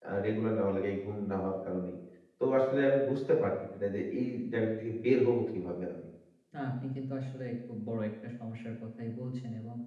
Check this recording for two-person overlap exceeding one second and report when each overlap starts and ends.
none

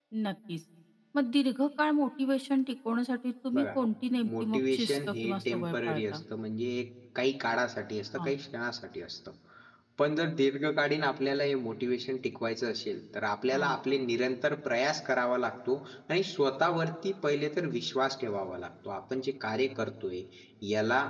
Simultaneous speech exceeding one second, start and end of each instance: 4.4-6.2

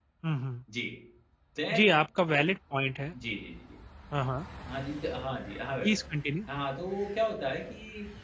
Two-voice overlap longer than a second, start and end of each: none

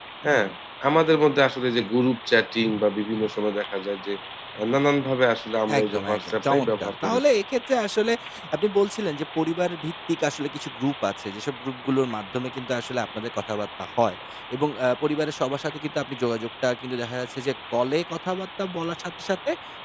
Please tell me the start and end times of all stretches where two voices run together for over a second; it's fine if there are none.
5.8-7.2

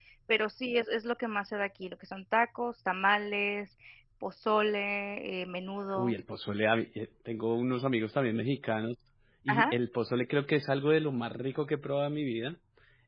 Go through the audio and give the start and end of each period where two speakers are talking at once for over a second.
none

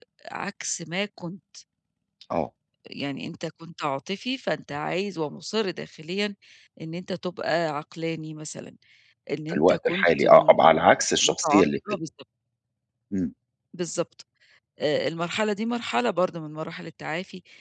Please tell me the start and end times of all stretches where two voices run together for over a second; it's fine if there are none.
9.5-12.0

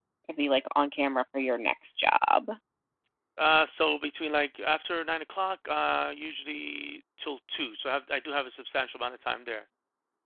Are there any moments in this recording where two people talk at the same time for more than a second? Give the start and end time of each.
none

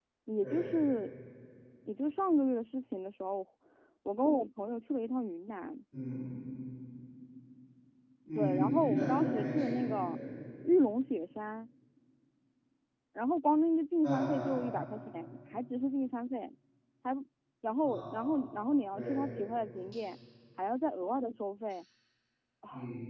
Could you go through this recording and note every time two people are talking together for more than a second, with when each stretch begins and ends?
8.3-10.2

